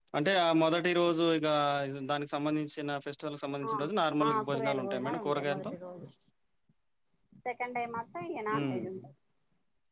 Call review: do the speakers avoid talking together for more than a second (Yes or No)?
No